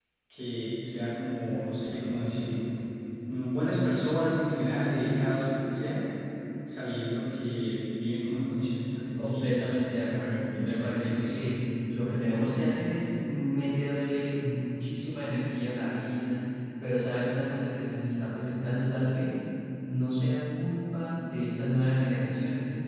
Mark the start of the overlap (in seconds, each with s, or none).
9.2 s